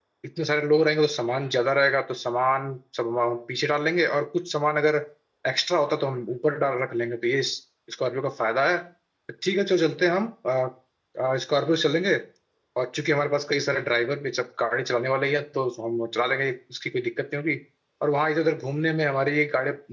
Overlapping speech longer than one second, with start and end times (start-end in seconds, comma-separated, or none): none